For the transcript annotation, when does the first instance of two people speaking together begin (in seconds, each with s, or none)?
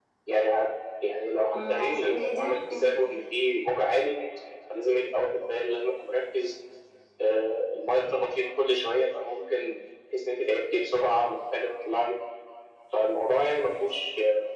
1.5 s